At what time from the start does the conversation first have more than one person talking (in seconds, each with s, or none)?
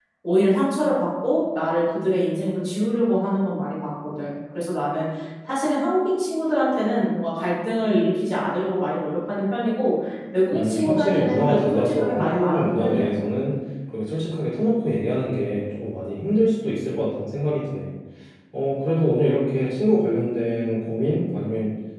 10.5 s